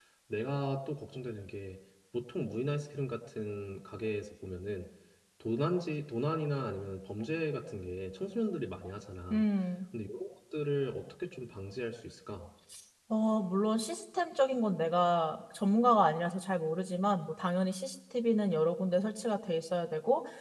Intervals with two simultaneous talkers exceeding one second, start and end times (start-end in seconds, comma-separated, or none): none